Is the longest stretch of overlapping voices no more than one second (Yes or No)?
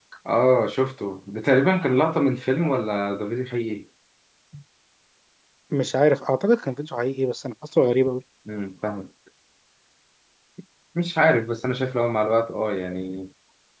Yes